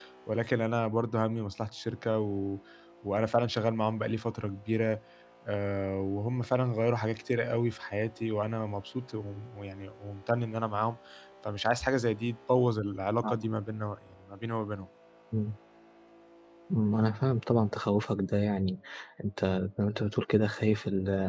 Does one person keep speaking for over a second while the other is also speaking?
No

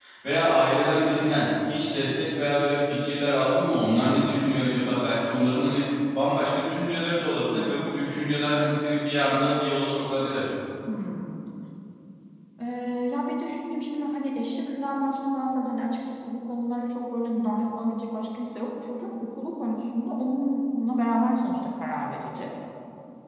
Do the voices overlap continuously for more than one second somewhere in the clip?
No

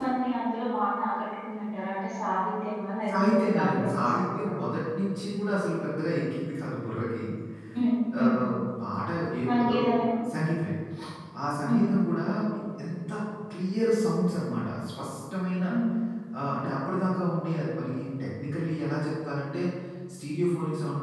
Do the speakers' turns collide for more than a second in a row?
Yes, from 3.1 s

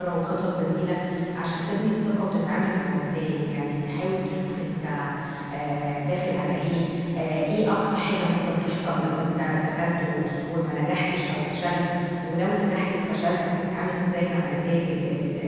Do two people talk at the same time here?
No

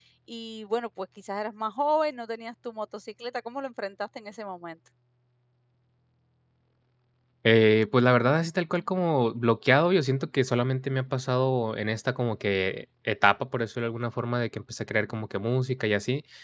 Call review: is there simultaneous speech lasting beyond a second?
No

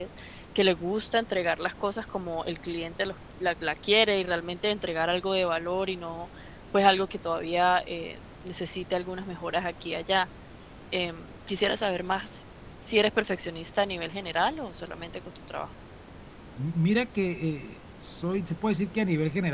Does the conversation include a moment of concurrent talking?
No

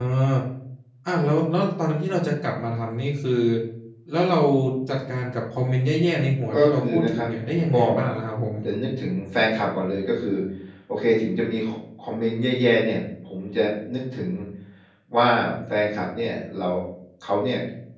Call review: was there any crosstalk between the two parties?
Yes, from 6.5 s

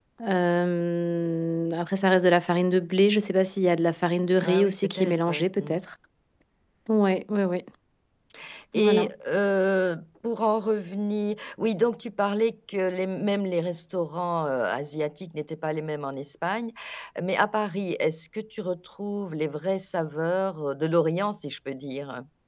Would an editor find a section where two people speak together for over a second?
Yes, from 4.4 s

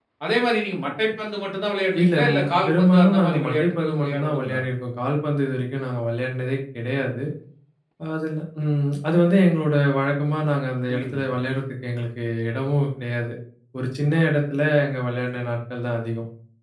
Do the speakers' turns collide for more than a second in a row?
Yes, from 2.0 s

